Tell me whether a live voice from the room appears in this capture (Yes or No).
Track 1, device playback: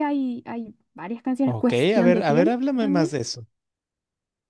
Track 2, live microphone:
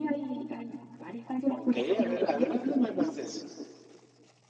No